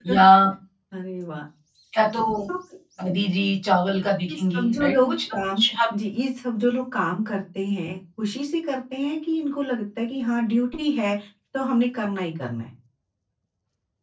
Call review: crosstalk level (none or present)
present